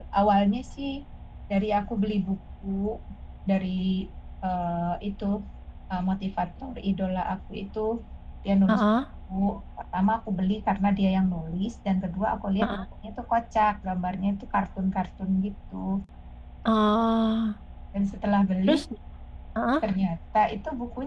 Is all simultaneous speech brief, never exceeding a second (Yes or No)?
Yes